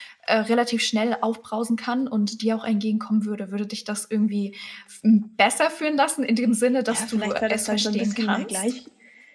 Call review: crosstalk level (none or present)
present